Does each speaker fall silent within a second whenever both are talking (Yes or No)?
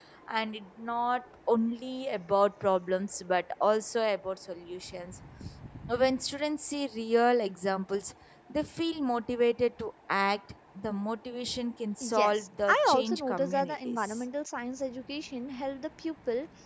No